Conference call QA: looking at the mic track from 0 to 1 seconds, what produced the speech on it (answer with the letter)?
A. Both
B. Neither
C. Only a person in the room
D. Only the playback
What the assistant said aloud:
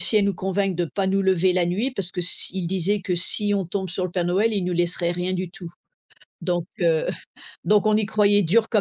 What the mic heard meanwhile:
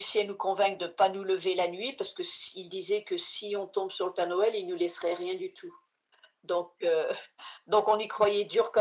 D